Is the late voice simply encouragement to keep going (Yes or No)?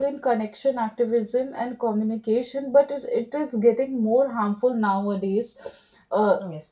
Yes